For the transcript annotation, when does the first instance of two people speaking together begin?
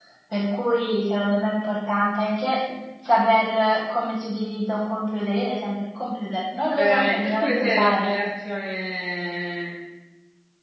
6.7 s

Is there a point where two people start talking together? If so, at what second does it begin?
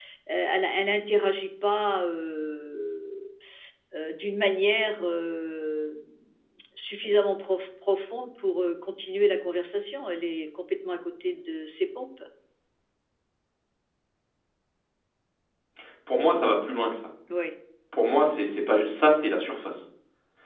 none

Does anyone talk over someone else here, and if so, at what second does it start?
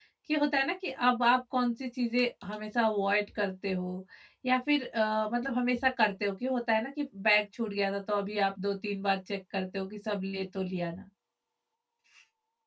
none

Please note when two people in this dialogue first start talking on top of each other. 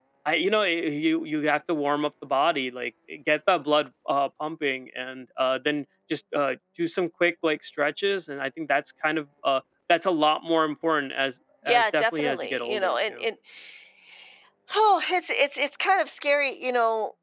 11.7 s

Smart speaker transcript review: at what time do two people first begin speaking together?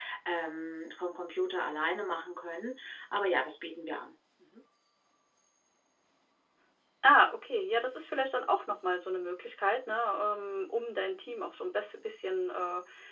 none

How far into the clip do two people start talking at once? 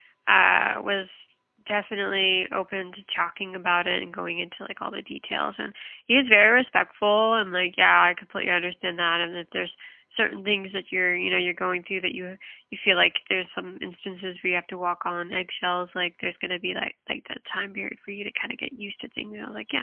none

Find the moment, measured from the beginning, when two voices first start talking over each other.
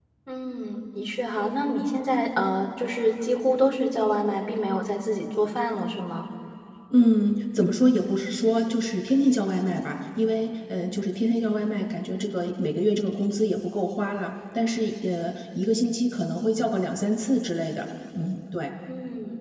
none

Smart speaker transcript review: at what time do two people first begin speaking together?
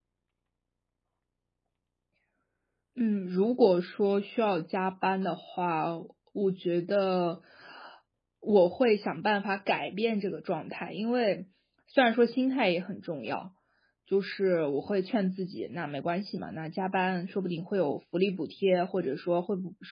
none

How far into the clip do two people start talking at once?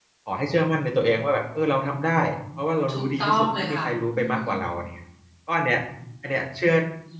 2.9 s

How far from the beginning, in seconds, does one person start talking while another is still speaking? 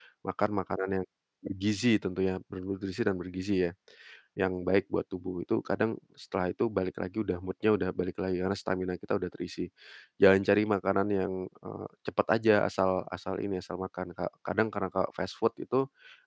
none

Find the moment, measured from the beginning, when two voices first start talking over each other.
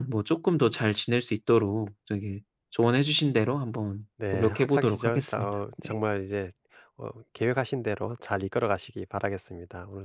4.2 s

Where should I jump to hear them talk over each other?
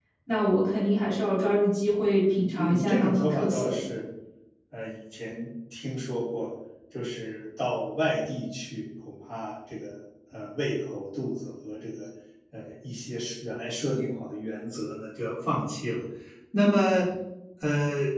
2.6 s

